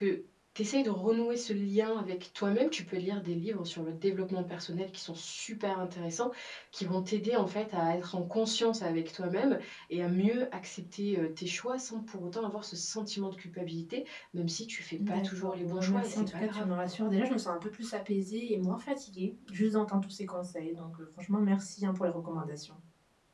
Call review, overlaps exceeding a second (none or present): present